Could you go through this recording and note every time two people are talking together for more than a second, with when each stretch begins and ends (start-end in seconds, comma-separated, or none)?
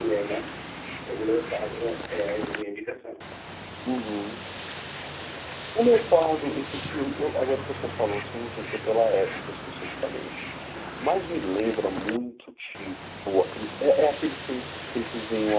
none